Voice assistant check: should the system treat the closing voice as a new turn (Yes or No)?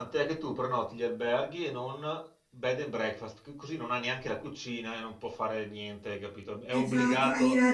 Yes